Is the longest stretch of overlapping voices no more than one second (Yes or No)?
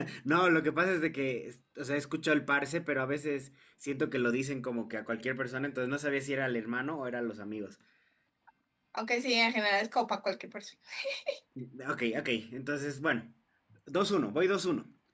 Yes